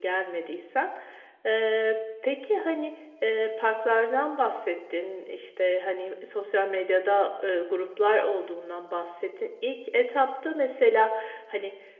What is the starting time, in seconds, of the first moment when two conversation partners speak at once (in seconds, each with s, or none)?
none